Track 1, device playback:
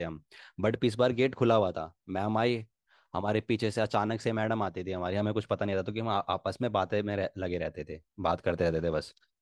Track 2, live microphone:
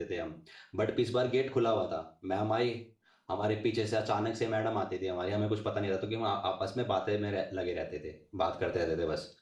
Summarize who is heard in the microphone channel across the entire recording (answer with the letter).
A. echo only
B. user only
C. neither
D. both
A